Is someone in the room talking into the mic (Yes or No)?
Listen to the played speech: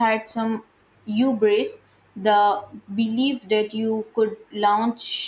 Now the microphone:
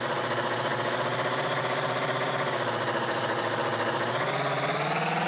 No